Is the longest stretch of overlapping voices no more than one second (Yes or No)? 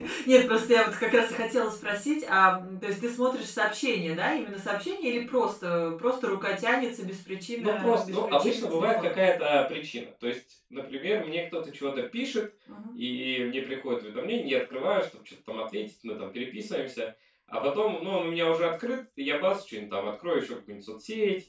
No